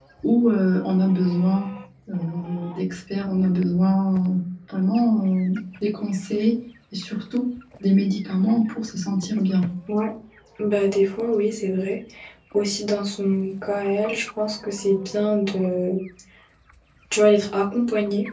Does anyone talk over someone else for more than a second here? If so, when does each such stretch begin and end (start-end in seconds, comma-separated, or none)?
none